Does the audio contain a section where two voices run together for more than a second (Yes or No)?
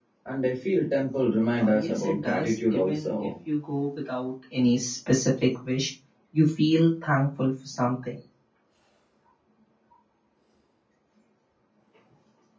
Yes